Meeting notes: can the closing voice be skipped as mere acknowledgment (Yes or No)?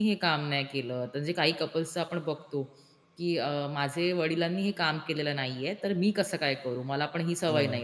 Yes